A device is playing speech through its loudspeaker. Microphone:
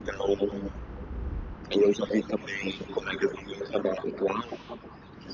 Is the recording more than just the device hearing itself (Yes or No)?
No